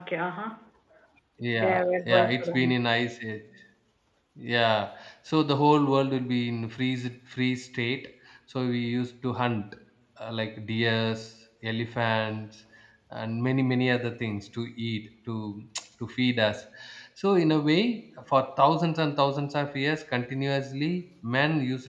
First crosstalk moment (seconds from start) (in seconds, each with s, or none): 1.6 s